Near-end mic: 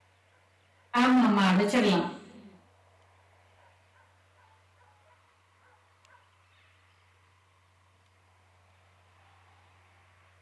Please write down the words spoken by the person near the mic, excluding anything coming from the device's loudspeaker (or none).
ஆமா, ஆமா, அடைச்சிரலாம்.